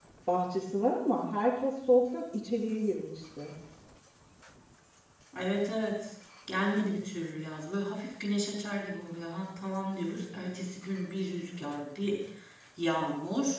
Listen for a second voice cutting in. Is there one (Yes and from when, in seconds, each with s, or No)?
No